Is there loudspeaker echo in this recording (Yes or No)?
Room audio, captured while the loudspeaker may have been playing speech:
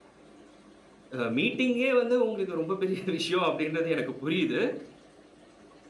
No